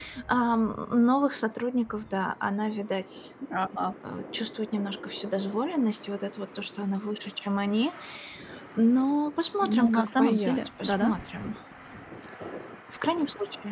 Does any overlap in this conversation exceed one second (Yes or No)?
Yes